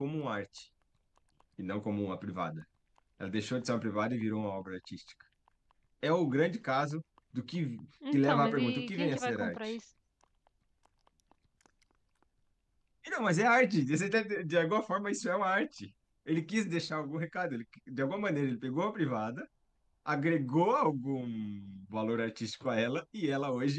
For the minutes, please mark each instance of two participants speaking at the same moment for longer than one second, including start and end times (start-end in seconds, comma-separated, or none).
8.1-9.8